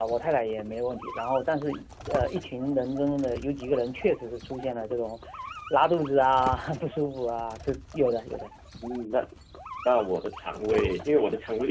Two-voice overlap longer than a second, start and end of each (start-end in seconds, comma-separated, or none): none